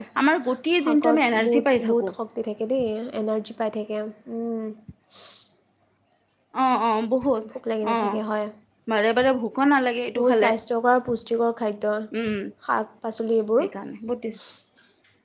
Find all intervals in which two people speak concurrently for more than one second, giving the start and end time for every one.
0.8-2.1

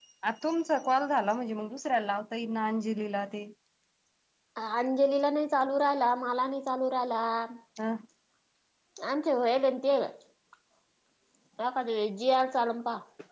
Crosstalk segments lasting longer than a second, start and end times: none

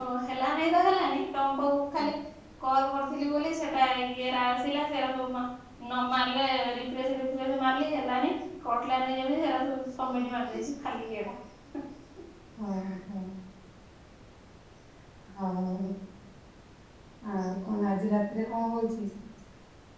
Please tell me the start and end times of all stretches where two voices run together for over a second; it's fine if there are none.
none

